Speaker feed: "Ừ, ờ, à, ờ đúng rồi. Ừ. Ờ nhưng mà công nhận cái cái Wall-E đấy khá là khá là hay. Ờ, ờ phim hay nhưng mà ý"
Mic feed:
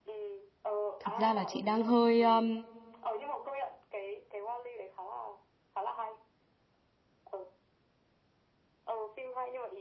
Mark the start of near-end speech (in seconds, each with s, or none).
1.0 s